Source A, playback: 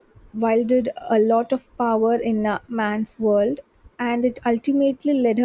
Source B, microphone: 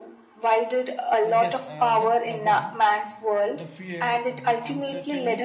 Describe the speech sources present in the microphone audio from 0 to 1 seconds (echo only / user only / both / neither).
echo only